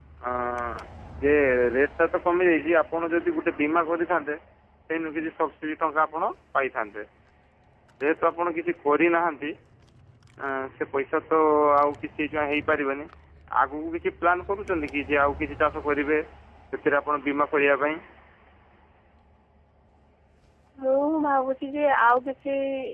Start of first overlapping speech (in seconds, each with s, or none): none